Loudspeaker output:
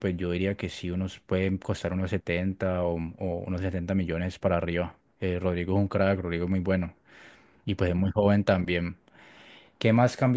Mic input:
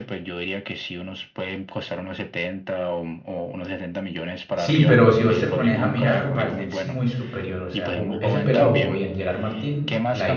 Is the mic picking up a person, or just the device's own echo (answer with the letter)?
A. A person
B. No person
A